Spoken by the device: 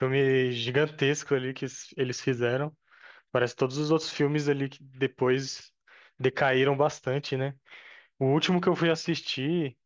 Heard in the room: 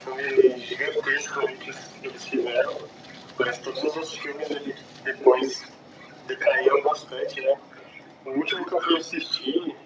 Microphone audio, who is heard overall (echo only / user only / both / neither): echo only